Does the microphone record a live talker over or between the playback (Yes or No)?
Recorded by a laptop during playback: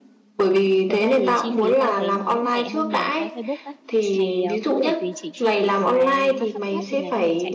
Yes